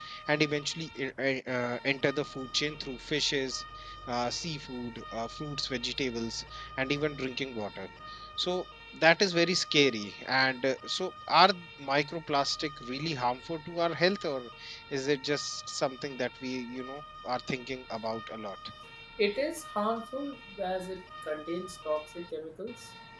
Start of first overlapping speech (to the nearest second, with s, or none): none